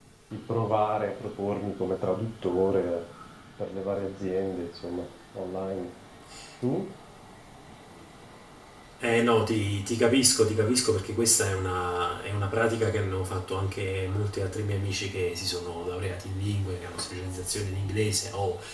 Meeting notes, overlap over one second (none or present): none